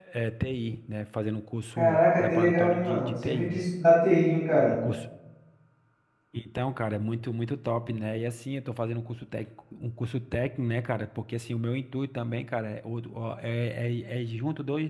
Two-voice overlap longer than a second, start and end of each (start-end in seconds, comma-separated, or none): 1.8-3.6